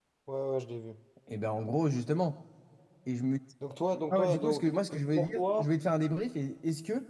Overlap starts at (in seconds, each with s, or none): 4.1 s